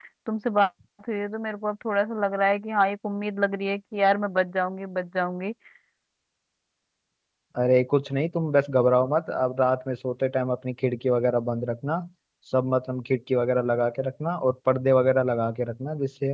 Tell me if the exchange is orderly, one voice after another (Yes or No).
Yes